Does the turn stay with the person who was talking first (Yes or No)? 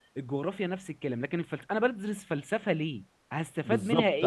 No